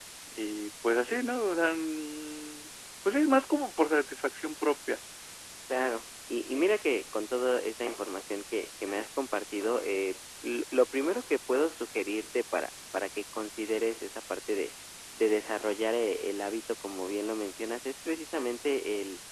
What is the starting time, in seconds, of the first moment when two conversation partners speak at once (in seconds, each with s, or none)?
none